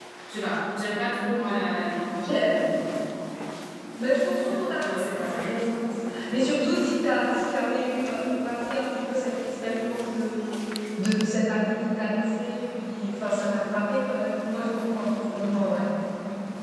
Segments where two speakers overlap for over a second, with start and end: 4.3-5.6

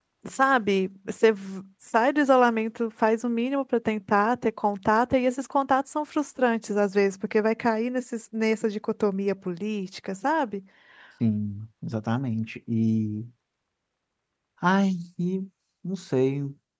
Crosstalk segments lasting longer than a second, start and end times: none

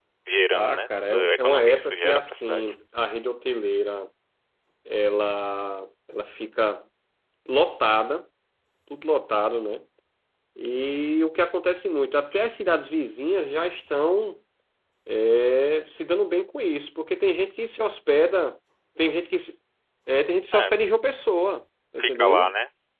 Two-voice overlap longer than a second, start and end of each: 0.5-2.7

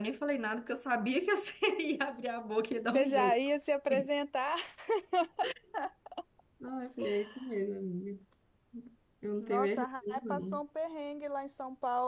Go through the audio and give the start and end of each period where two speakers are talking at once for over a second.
9.4-10.6

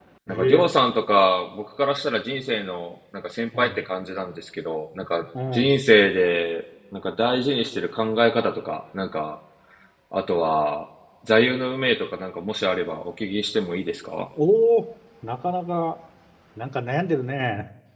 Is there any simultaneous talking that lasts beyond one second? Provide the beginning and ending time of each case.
none

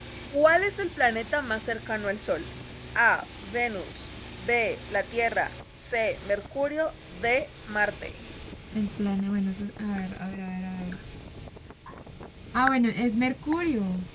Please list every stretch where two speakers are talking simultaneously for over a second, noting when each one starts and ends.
none

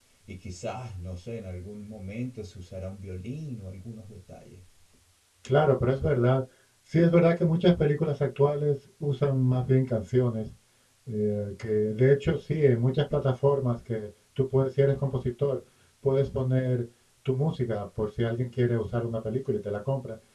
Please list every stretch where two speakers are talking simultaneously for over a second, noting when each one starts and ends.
none

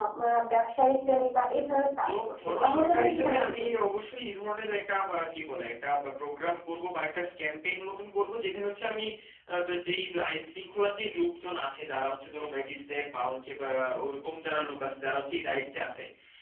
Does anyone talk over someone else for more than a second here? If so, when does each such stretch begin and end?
2.1-3.8

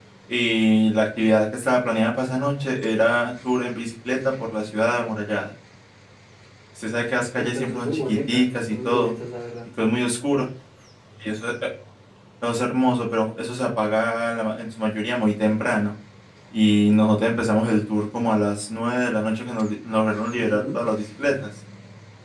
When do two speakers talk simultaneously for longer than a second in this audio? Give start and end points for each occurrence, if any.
7.4-9.1

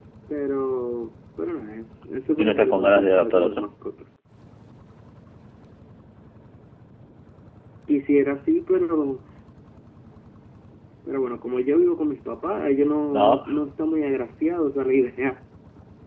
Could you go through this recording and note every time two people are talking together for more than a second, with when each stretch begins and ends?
2.4-3.7

